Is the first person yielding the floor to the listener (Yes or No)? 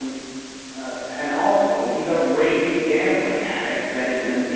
No